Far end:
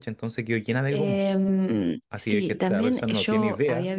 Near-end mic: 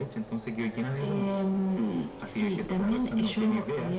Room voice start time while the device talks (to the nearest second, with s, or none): none